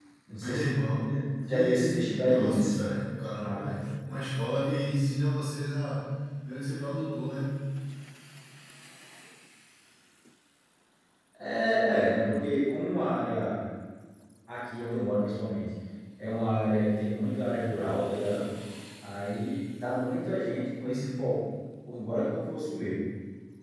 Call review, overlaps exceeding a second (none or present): present